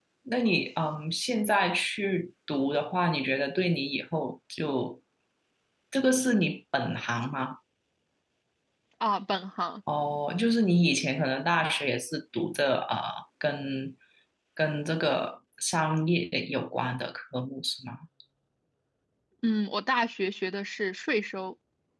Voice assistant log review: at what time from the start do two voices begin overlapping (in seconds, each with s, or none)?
none